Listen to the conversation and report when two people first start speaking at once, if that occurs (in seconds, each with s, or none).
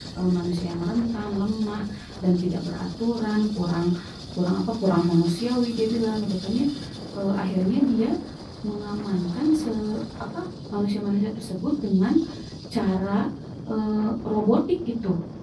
none